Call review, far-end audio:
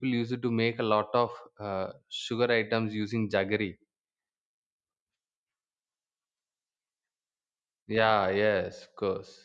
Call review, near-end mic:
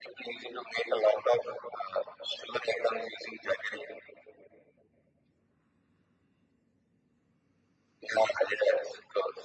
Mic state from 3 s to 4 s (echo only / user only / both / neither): echo only